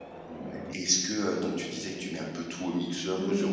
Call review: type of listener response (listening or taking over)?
listening